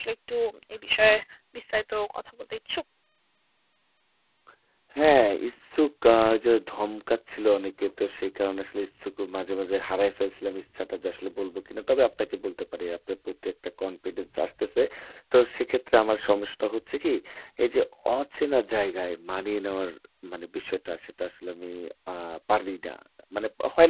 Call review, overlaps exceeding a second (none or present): none